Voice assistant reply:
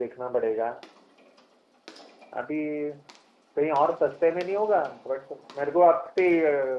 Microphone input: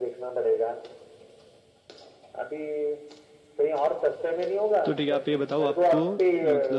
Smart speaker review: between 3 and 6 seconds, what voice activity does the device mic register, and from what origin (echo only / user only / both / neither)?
both